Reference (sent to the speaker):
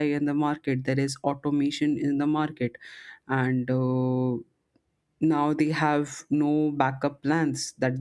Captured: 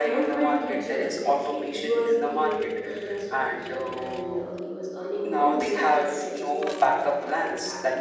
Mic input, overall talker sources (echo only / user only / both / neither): both